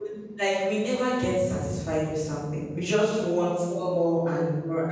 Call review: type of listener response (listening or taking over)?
listening